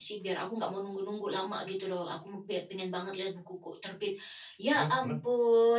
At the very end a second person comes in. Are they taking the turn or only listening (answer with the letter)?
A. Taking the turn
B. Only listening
B